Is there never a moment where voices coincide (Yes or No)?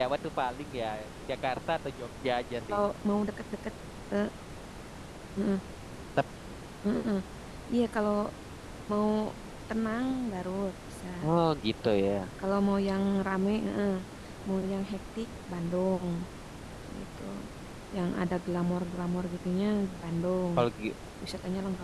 Yes